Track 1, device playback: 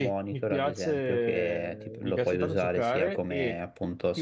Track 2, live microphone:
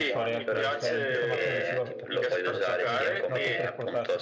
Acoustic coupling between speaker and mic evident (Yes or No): Yes